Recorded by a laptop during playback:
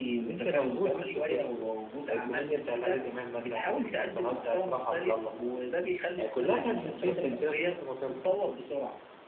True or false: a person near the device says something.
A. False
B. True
B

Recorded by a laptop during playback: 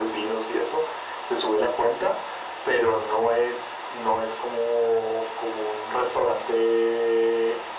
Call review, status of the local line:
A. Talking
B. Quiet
B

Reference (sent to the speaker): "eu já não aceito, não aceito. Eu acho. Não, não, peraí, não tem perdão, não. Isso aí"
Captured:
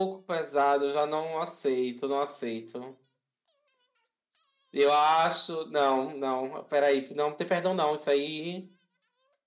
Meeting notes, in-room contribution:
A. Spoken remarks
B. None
B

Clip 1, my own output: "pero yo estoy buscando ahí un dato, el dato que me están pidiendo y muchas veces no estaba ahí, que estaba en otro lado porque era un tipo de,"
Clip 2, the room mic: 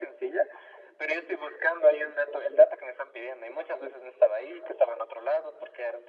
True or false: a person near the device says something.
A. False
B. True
A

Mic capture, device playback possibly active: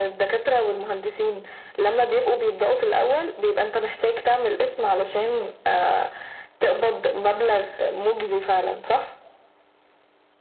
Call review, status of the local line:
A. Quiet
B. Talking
A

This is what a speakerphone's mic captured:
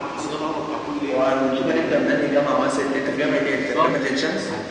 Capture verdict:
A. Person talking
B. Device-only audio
A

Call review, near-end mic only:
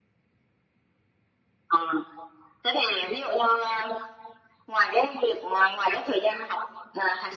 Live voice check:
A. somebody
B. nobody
B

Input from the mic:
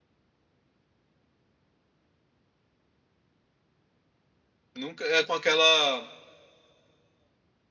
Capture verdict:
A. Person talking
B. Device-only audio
A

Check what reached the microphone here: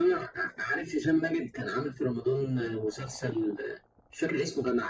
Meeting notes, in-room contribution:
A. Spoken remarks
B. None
B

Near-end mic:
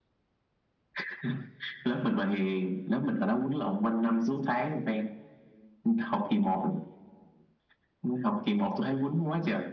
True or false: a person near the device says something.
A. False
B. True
A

